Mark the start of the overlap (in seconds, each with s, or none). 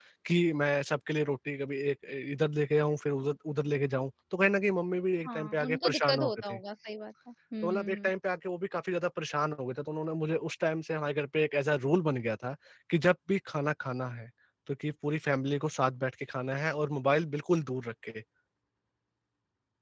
5.2 s